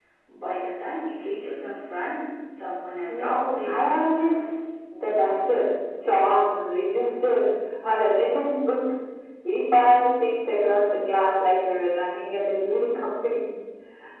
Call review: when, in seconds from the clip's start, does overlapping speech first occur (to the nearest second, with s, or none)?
3 s